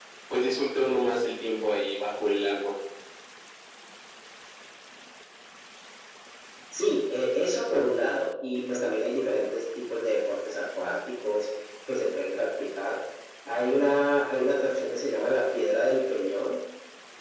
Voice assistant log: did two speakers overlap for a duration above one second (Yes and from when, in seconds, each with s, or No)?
No